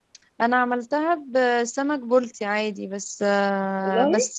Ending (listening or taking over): listening